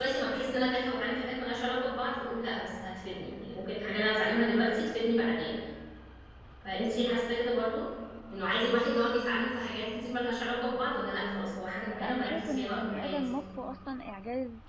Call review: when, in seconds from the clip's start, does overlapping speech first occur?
12.0 s

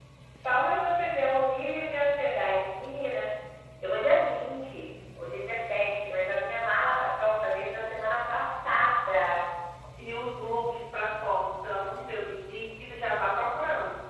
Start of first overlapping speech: none

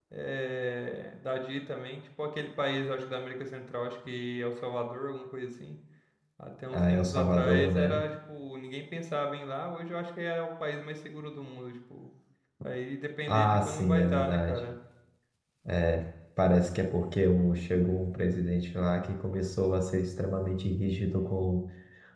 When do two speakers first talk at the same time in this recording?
6.7 s

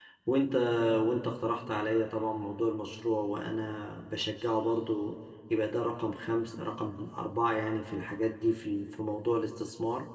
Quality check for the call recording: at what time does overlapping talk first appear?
none

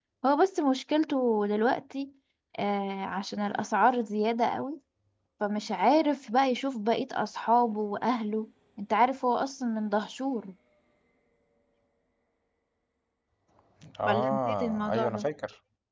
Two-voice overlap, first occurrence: 14.1 s

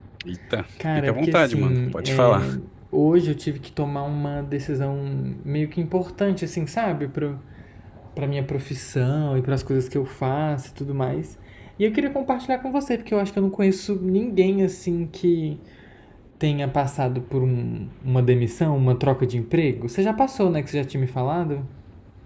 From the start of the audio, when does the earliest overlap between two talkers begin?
0.9 s

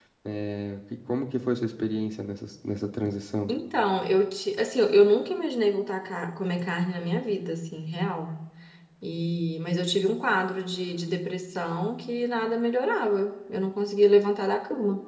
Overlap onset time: none

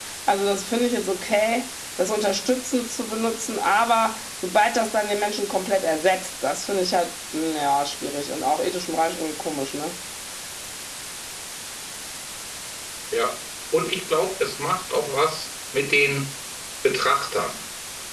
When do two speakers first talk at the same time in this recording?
none

